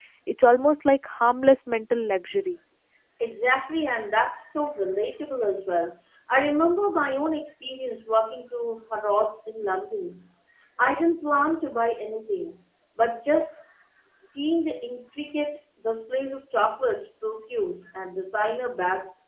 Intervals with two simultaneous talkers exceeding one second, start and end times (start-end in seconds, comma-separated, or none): none